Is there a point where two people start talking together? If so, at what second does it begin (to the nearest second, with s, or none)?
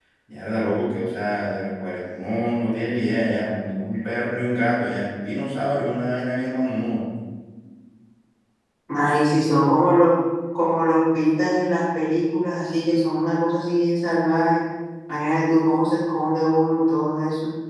none